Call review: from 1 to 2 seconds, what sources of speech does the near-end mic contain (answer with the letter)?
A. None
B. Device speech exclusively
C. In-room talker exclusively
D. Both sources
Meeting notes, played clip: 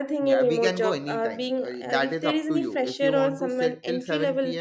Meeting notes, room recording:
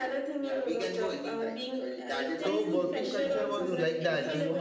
B